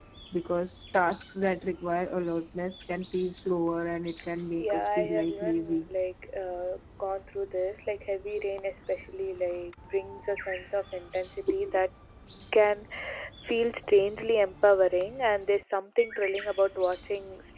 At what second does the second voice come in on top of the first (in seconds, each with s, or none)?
4.6 s